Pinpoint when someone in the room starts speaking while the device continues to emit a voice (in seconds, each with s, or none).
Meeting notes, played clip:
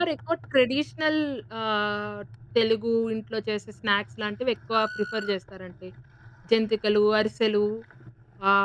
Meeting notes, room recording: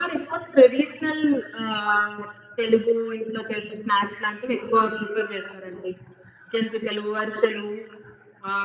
none